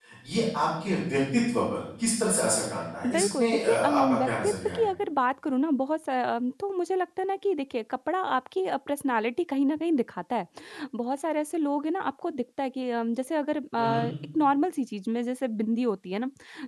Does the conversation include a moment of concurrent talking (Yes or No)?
Yes